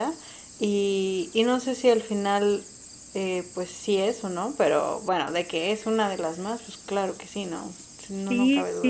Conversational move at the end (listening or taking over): taking over